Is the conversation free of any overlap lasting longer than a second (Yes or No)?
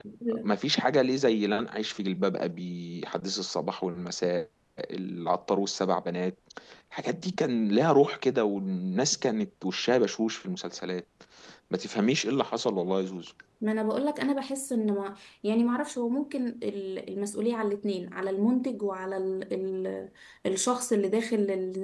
Yes